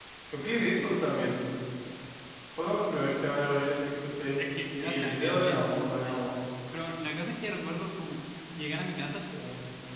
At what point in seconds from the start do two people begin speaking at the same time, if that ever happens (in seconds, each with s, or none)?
4.8 s